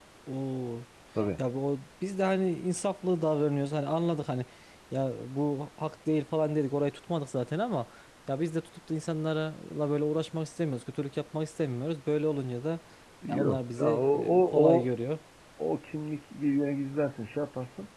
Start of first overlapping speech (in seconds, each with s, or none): 13.3 s